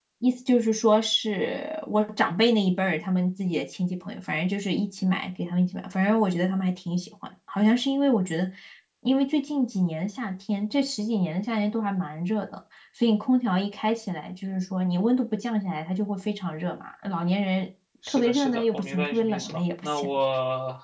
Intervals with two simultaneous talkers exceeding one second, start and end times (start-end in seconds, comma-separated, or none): 18.1-20.1